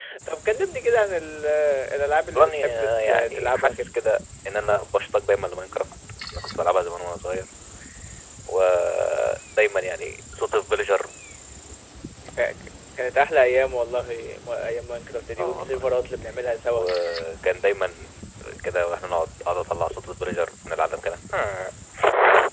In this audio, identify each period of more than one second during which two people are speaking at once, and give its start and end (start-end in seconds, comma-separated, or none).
2.3-3.9